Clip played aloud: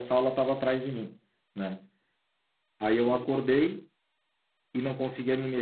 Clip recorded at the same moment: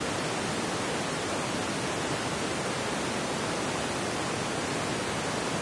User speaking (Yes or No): No